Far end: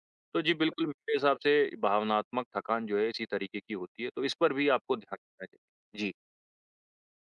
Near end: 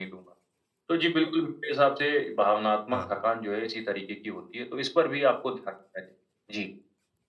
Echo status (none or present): present